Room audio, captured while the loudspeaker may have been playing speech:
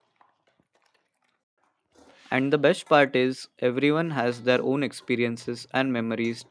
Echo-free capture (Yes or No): Yes